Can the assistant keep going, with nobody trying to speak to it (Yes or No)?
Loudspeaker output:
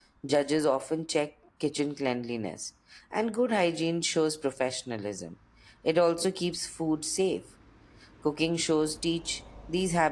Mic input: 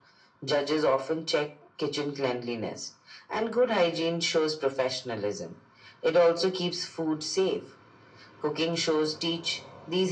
Yes